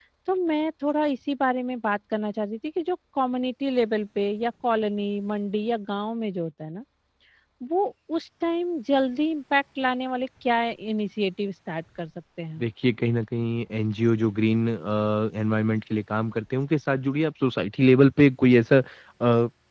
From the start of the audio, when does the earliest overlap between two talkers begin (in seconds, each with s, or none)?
none